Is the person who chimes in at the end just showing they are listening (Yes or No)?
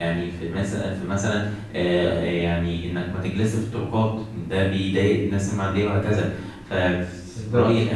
Yes